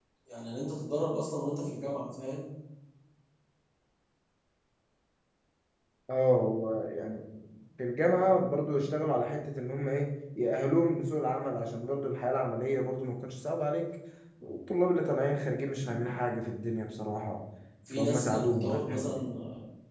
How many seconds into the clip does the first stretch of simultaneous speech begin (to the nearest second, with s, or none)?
18 s